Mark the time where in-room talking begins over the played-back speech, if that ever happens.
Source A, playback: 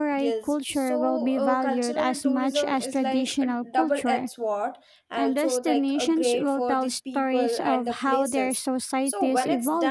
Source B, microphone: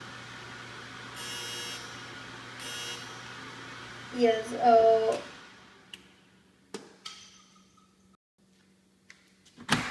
4.1 s

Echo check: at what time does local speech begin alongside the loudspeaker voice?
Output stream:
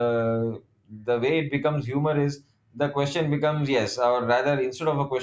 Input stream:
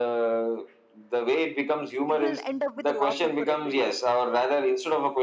2.1 s

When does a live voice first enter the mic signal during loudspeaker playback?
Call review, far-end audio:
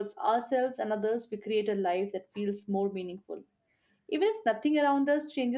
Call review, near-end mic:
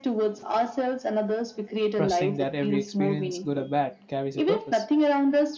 1.9 s

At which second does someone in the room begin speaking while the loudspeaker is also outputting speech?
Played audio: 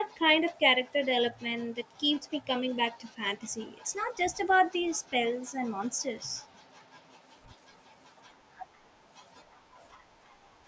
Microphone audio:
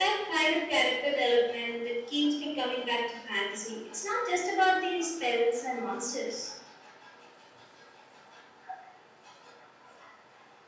none

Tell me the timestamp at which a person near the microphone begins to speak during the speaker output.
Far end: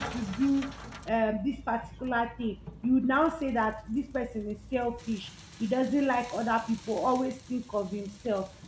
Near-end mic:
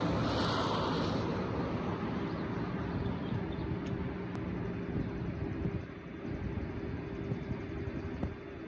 none

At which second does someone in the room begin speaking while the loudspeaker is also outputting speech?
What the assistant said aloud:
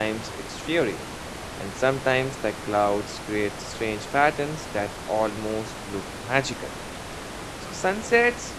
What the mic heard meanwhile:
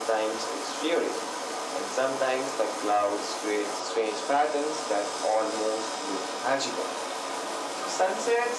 none

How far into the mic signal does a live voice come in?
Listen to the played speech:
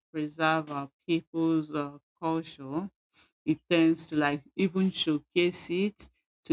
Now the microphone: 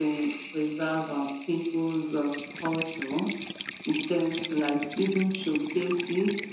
none

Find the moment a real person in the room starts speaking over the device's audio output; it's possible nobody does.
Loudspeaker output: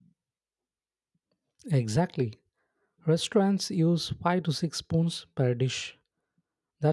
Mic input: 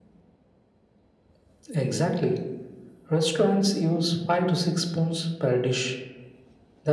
none

